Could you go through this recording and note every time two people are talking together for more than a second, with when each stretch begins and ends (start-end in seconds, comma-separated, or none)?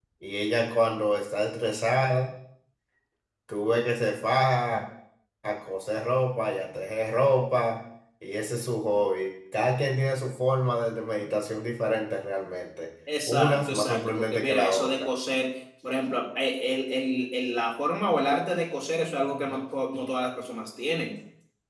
13.3-15.1